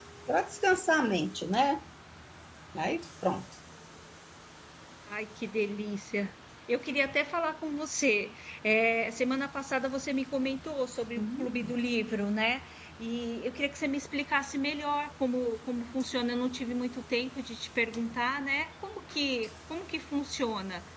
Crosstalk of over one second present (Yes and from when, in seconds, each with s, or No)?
No